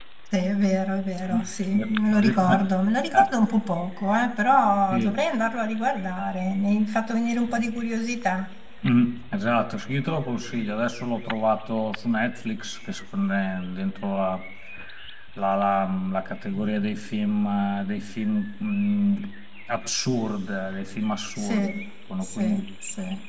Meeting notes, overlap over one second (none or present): none